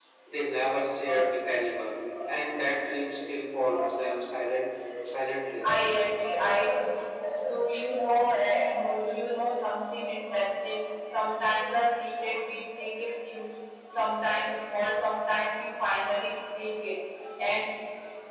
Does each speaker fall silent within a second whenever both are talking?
Yes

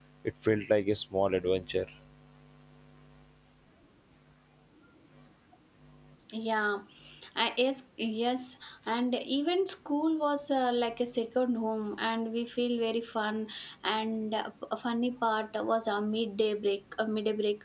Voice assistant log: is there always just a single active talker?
Yes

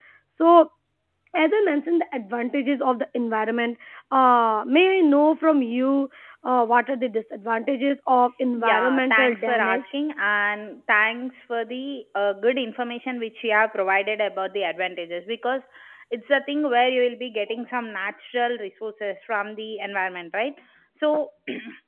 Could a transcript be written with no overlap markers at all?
No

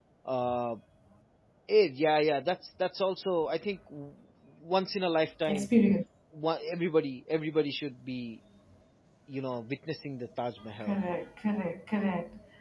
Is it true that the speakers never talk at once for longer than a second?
Yes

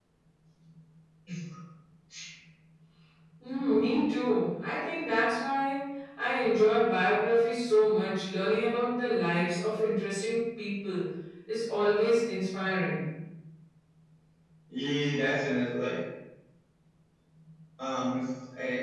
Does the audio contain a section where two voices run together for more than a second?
No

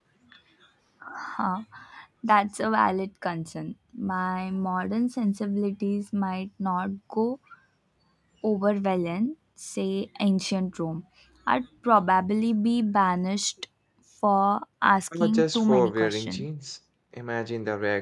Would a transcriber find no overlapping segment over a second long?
No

